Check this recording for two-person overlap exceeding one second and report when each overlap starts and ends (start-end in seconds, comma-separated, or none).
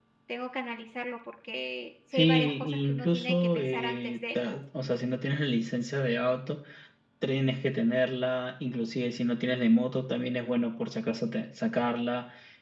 2.1-4.6